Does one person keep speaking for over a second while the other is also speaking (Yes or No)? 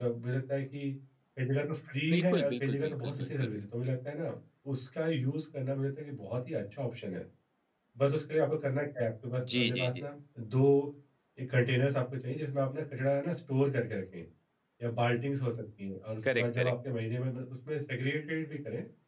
Yes